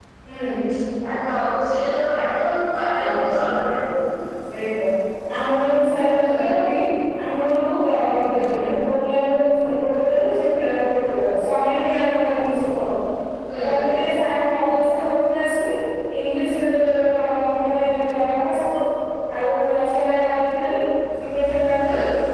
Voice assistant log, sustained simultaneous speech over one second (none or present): none